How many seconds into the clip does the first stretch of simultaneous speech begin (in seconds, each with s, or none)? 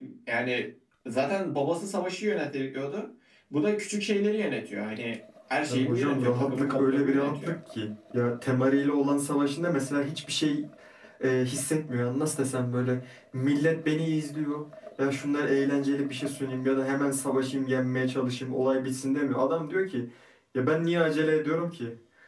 5.7 s